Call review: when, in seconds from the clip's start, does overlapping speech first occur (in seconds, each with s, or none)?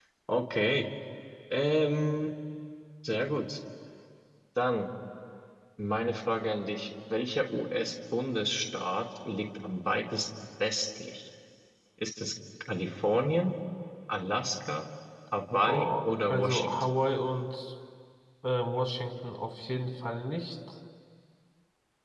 15.6 s